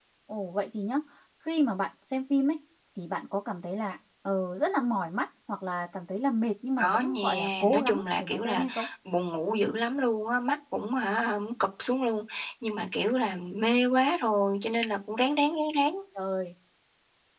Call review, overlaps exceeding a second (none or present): present